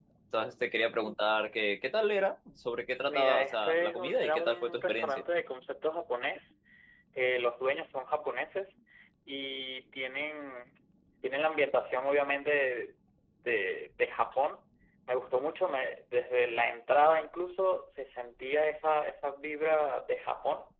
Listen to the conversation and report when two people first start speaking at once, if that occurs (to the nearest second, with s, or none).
3 s